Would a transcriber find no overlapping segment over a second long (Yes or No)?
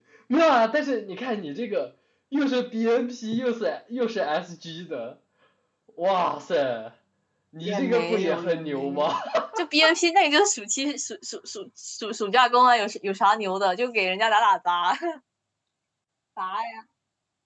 No